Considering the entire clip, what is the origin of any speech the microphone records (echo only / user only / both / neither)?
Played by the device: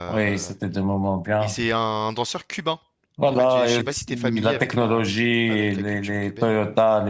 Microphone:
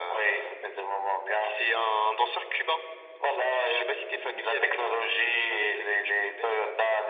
echo only